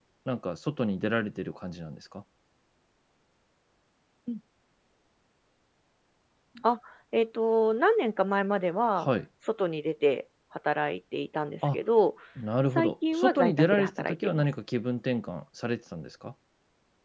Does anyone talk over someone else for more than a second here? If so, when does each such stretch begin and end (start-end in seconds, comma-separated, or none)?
12.8-14.4